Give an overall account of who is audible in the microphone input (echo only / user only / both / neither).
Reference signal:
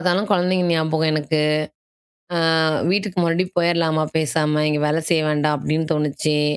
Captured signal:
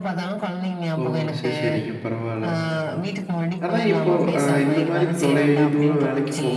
both